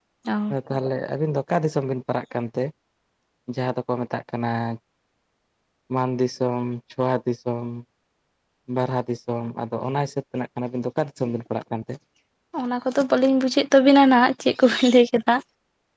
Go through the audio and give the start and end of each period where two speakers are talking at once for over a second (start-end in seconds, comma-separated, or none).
none